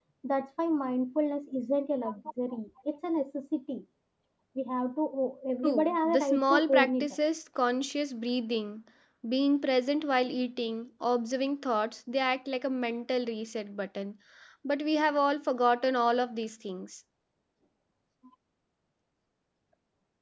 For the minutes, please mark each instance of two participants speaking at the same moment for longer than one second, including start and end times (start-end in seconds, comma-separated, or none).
5.6-7.1